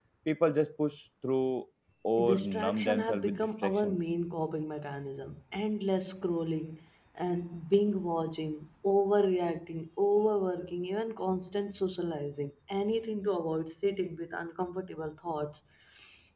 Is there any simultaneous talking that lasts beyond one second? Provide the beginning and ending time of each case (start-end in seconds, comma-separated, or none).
2.2-4.0